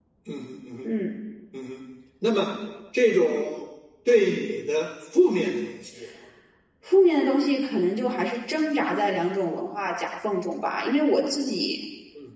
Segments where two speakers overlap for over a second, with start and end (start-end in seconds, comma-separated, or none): none